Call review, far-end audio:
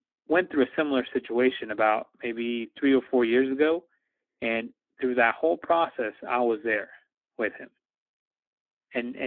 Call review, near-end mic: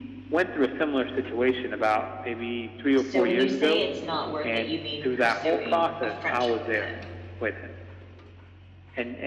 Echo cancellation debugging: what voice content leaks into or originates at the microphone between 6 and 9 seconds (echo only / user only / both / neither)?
both